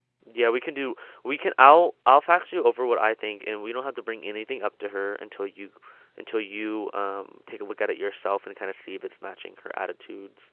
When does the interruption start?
none

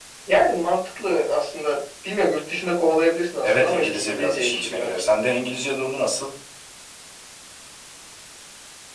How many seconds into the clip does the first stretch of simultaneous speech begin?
3 s

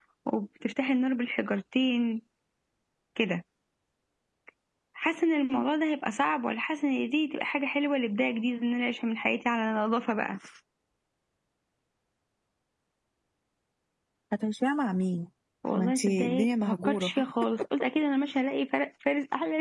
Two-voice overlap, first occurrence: 16 s

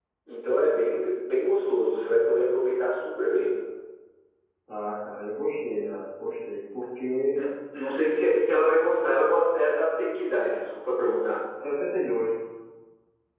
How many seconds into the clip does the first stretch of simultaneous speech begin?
none

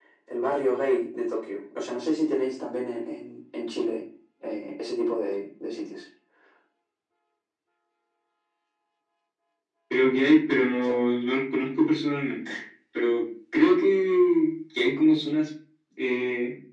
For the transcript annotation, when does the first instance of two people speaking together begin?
none

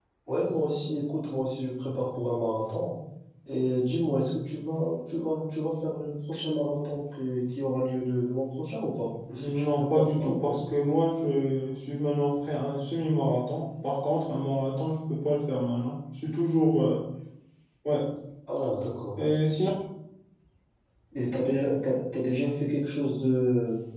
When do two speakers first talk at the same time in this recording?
9 s

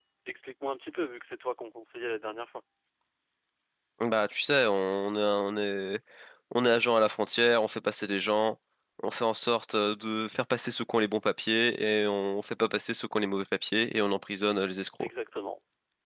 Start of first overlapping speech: none

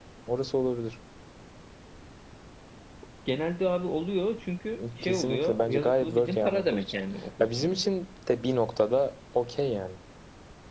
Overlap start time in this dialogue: 5 s

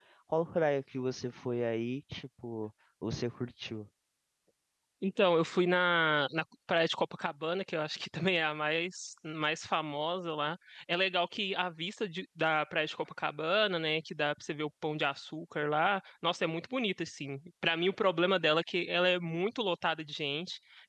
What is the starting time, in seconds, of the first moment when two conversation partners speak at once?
none

